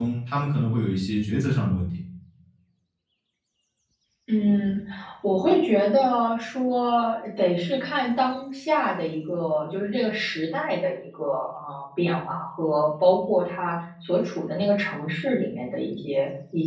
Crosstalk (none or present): none